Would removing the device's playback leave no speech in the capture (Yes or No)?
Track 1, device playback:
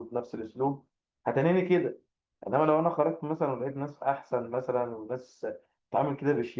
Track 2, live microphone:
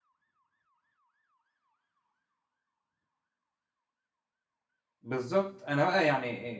No